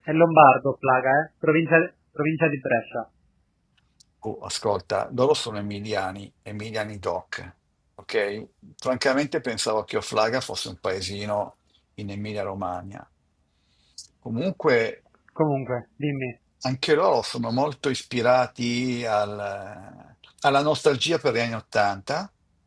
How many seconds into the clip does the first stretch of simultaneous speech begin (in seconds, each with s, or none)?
none